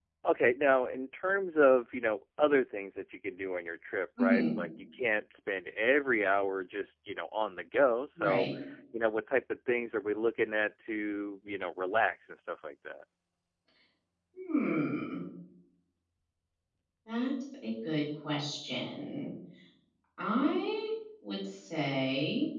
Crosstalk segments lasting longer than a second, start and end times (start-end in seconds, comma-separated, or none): none